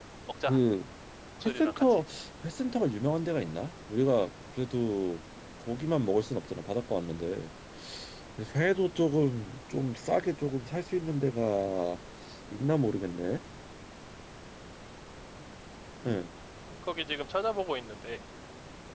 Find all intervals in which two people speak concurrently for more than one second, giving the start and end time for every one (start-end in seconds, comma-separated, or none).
none